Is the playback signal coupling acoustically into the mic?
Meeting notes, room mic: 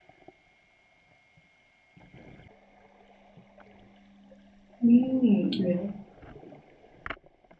No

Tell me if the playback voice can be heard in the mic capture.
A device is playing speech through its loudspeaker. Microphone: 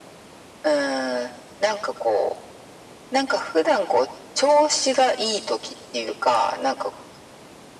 Yes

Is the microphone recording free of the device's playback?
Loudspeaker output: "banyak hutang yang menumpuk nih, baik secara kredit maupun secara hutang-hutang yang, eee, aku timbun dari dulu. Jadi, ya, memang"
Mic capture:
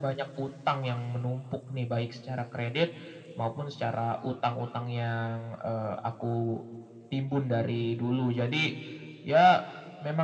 No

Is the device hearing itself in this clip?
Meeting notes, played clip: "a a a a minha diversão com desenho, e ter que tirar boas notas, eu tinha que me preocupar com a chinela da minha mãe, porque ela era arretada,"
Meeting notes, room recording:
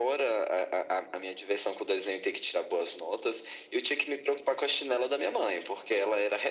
Yes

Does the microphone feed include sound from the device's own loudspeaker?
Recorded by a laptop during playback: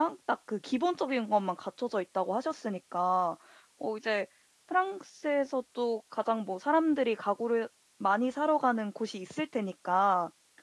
No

